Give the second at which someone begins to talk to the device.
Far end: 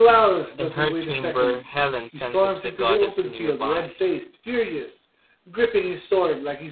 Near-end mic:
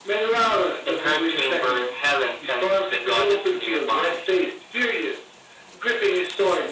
none

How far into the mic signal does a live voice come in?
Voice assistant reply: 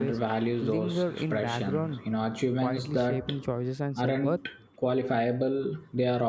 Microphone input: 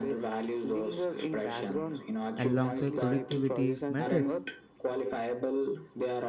2.4 s

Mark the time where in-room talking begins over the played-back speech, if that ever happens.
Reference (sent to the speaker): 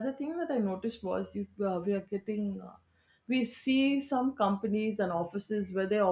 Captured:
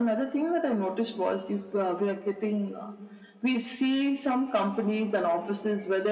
none

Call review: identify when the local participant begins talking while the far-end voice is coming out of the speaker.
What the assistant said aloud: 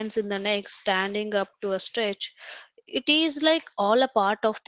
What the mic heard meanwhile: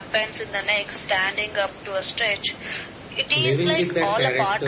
3.3 s

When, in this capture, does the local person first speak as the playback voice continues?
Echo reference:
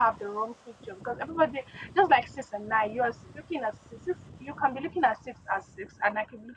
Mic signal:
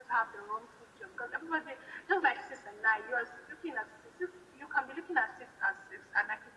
none

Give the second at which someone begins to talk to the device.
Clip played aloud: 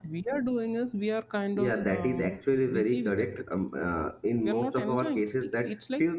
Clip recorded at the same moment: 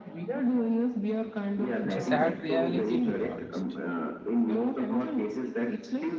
1.8 s

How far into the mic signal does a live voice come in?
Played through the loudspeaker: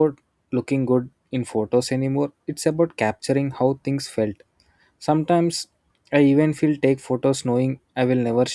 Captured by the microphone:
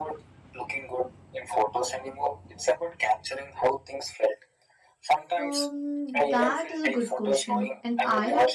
5.4 s

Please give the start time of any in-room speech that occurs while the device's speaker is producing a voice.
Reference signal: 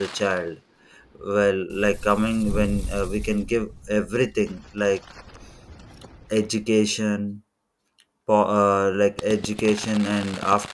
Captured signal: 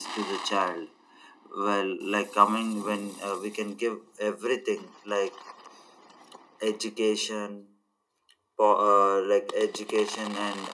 none

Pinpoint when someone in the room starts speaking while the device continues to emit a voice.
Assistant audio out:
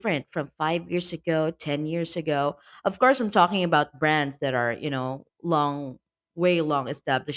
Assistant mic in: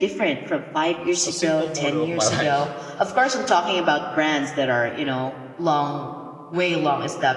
1.2 s

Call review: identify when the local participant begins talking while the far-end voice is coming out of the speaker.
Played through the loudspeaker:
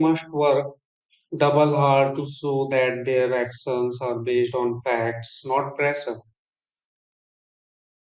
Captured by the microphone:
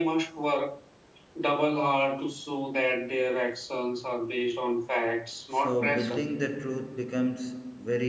5.6 s

